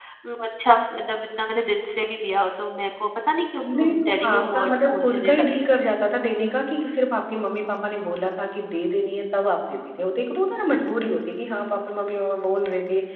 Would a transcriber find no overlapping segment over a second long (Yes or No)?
No